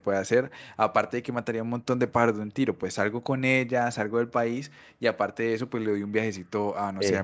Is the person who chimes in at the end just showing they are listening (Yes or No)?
Yes